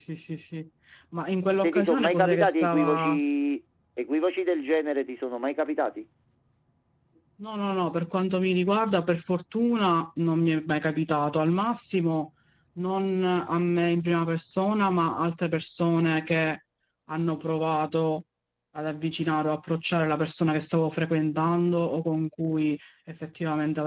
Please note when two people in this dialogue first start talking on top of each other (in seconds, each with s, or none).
1.6 s